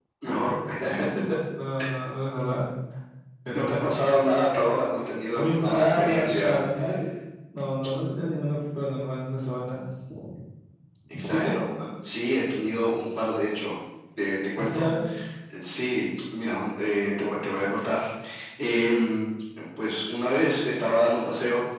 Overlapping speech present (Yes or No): Yes